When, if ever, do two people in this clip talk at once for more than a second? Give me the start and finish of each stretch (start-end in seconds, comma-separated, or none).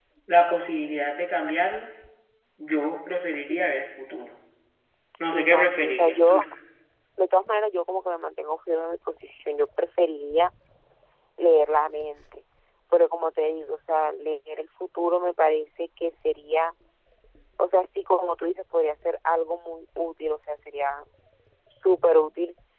5.2-6.4